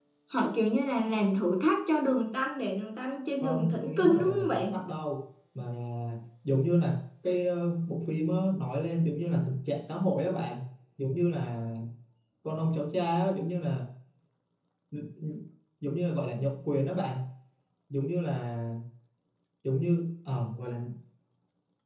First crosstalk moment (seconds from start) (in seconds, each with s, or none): 3.4 s